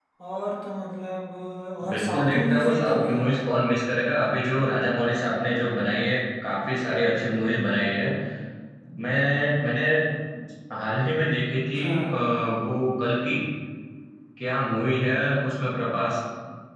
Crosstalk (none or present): present